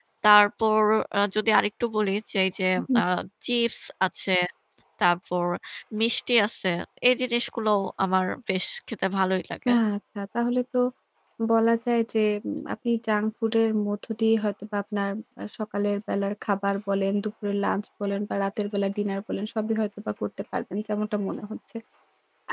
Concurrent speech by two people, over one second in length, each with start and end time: none

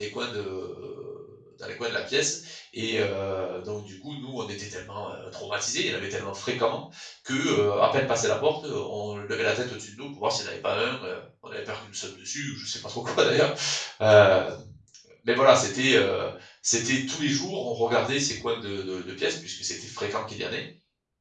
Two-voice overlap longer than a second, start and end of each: none

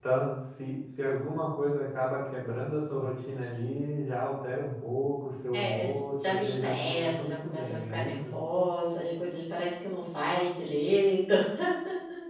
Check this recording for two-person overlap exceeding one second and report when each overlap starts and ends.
5.5-8.3

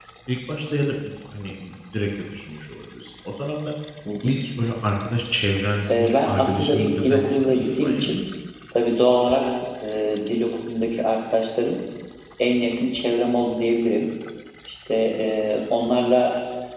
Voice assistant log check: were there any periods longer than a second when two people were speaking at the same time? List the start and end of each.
6.0-8.2

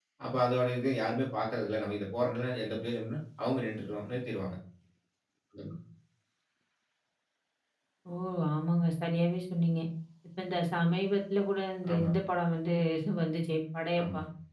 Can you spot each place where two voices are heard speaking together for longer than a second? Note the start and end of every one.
none

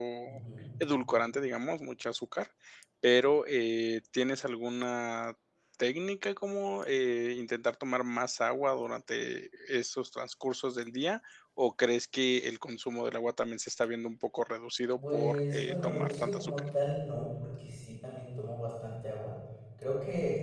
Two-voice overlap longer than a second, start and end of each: 15.0-16.6

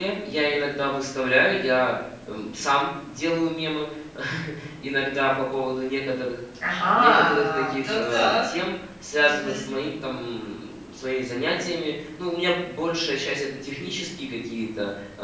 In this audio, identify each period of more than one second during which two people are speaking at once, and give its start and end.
6.9-8.4

